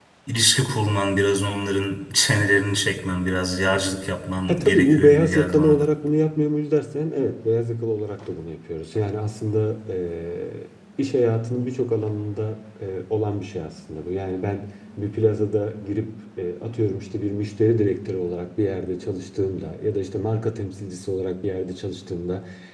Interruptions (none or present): present